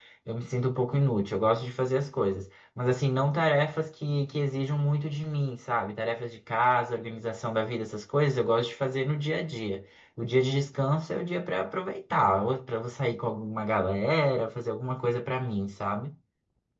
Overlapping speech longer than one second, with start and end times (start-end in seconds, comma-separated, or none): none